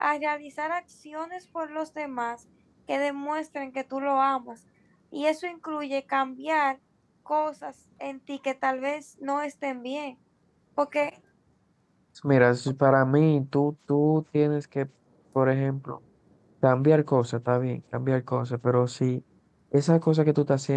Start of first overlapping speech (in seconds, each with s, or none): none